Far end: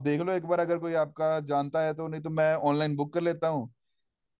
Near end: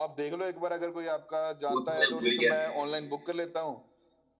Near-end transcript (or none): वो तो मैं भूल ही गया था।